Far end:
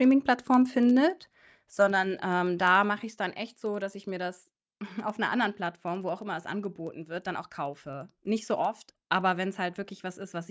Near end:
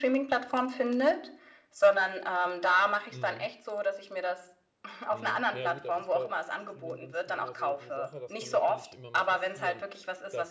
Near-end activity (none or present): present